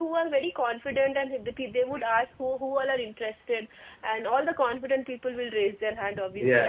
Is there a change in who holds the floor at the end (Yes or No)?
No